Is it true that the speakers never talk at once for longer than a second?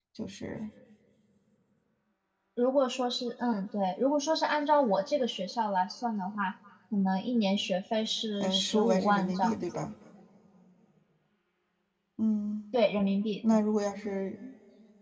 No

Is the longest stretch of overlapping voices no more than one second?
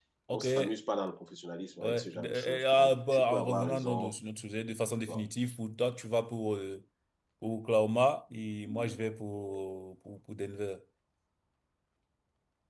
No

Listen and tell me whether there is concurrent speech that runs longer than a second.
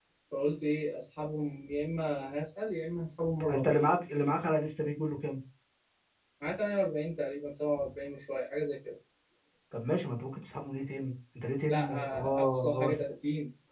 Yes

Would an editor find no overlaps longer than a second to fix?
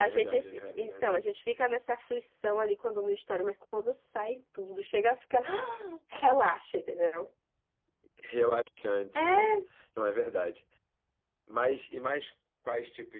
No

